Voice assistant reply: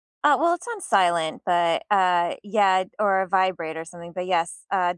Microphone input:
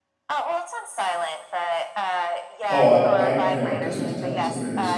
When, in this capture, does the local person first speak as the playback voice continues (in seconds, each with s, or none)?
2.7 s